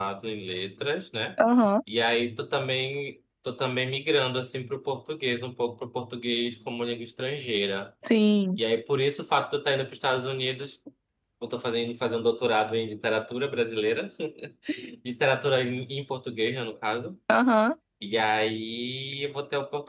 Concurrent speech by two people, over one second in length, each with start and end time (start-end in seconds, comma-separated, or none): none